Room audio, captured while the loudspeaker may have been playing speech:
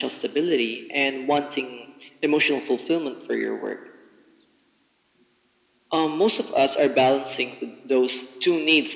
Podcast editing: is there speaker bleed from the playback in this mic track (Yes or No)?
Yes